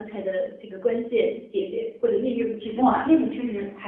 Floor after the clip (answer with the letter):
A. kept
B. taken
B